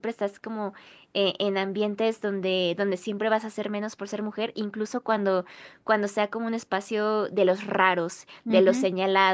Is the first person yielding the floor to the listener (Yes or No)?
No